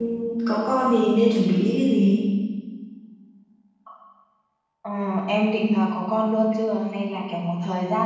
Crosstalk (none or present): none